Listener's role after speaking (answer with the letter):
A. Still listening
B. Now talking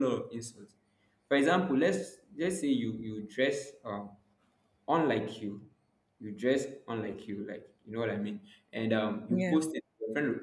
A